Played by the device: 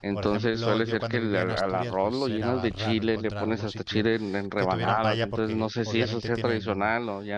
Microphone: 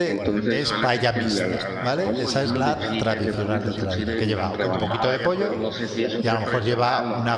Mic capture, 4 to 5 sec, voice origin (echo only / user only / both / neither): both